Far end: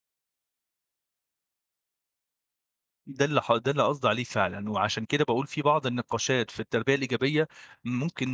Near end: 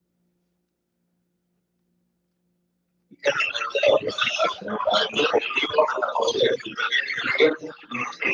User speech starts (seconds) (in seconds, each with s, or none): none